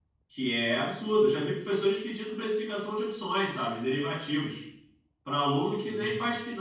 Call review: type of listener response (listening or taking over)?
listening